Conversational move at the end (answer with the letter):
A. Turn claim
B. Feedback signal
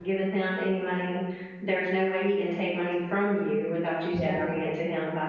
B